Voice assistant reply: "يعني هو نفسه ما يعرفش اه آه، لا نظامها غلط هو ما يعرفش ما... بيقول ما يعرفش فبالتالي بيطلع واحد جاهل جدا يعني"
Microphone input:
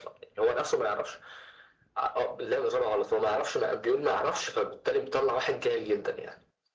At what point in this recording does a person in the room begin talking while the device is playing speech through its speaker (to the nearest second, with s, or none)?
none